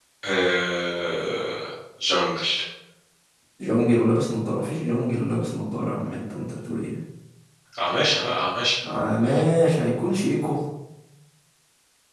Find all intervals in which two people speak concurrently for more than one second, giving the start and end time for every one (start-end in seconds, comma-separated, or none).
none